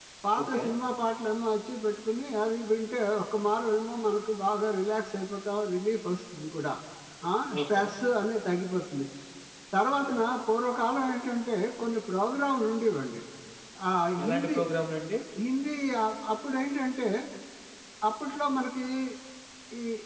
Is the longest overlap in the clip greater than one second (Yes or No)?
No